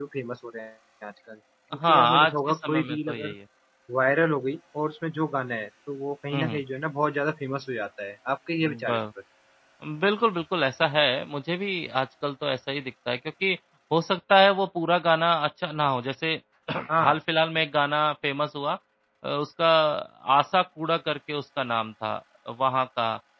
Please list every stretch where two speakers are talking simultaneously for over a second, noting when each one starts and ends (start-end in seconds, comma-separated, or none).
1.9-3.3